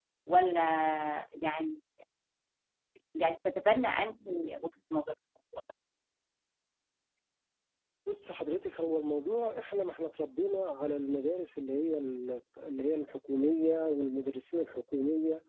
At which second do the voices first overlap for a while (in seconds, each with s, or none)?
none